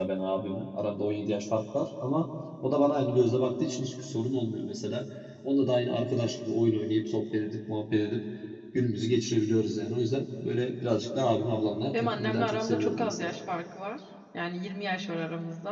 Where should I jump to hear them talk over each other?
11.9 s

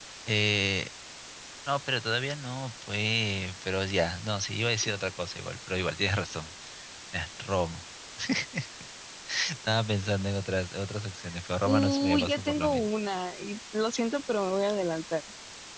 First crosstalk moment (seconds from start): 11.6 s

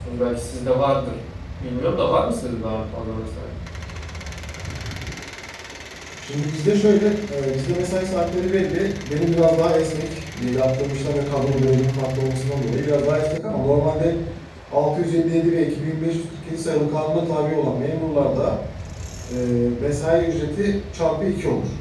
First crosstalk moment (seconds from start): none

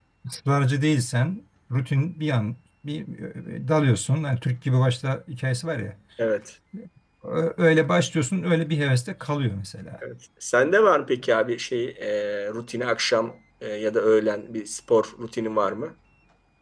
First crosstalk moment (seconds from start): none

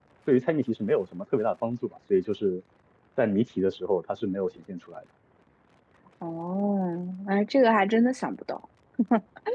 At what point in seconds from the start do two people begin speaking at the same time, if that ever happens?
none

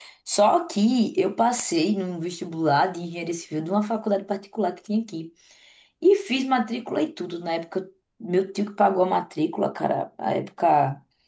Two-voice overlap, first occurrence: none

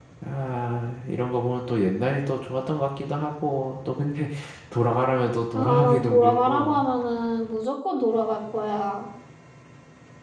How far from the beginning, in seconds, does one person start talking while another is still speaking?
5.5 s

